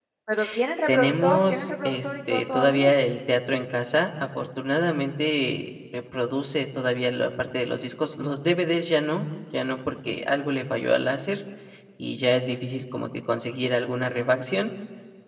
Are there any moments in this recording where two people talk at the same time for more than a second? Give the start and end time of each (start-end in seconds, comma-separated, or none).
0.9-2.9